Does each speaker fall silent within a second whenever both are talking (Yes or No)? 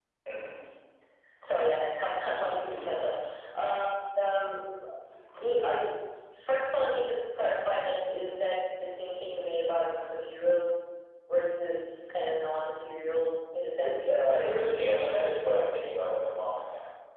No